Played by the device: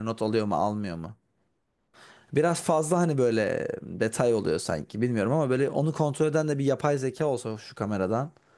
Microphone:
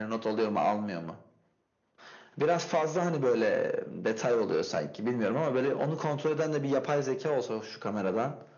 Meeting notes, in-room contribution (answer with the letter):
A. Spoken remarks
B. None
B